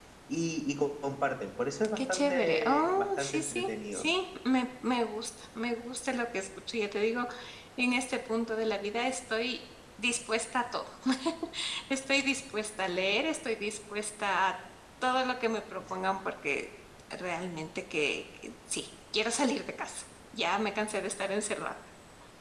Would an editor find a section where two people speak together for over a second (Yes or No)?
Yes